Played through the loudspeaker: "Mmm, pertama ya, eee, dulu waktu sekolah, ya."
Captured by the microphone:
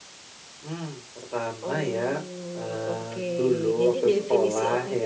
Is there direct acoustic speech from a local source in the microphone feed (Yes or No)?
Yes